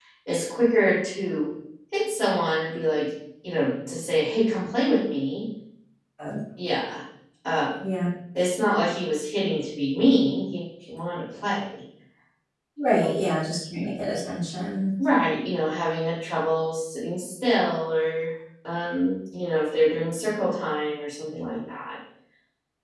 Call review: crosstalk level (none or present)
none